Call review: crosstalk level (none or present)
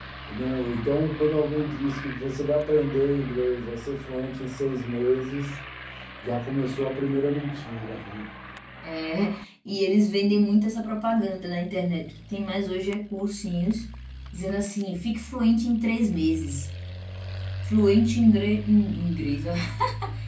none